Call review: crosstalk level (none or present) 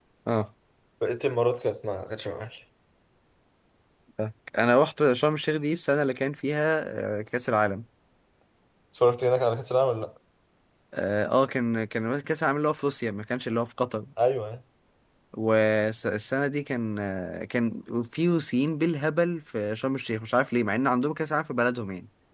none